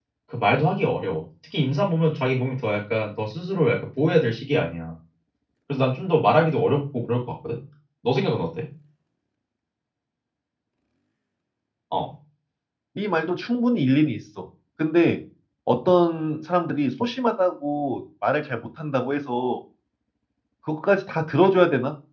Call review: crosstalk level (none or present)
none